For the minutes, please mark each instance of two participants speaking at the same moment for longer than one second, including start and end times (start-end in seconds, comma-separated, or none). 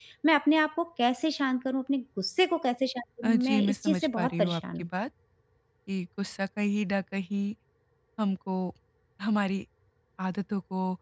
3.3-4.6